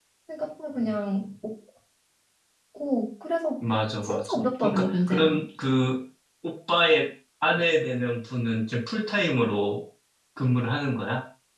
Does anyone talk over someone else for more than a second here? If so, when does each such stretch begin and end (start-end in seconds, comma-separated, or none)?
4.0-5.4